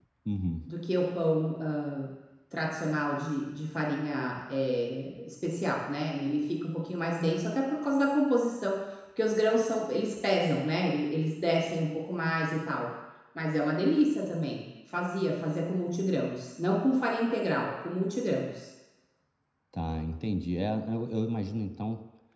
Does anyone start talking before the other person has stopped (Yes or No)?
No